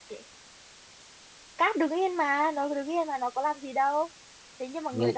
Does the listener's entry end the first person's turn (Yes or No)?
No